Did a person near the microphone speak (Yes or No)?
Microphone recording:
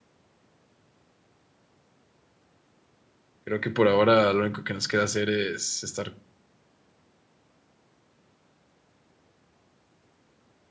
Yes